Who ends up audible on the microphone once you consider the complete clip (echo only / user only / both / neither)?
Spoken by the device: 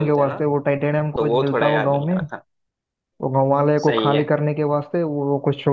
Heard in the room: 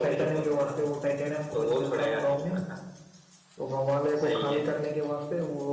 echo only